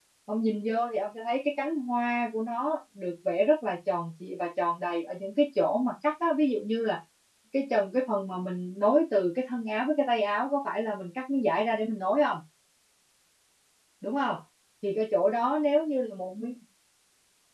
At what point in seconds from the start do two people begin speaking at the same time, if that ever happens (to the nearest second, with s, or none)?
none